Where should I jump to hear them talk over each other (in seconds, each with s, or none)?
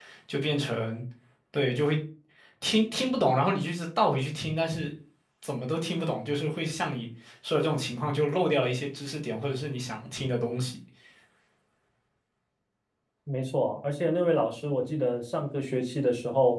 none